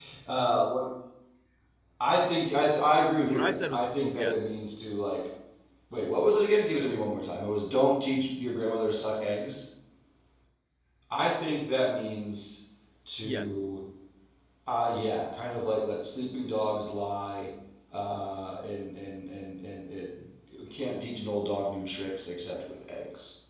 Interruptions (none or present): present